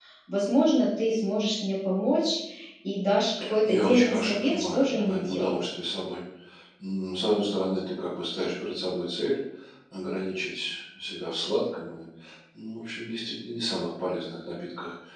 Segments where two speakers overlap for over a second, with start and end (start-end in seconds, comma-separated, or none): 3.6-5.5